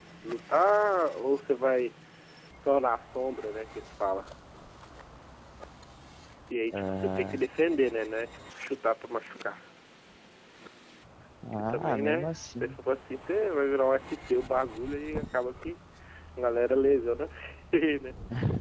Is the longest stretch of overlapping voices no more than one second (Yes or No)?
No